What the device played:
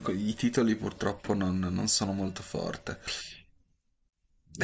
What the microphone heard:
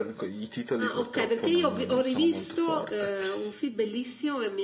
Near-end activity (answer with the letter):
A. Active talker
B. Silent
A